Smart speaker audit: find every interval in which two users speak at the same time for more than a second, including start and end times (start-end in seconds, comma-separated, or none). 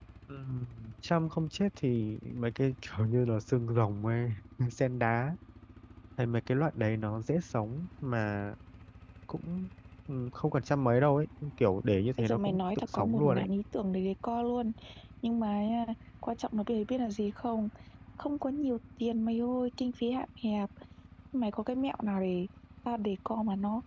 12.2-13.5